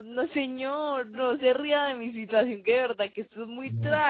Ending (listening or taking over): taking over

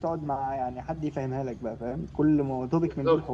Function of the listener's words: listening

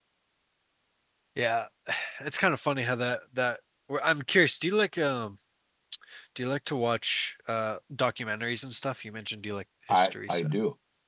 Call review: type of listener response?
taking over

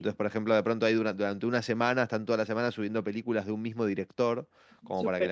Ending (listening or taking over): listening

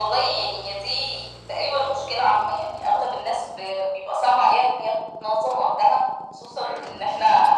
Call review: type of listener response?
listening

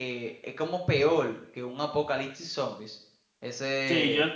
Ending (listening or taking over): taking over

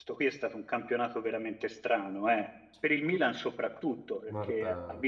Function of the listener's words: listening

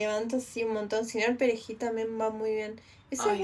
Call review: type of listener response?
listening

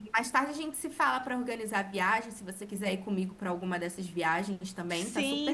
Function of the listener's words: taking over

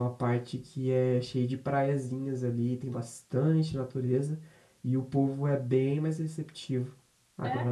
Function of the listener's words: listening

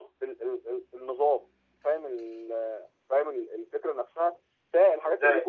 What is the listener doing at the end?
listening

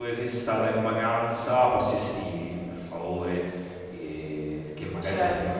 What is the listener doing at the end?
listening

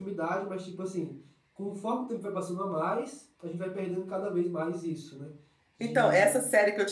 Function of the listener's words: taking over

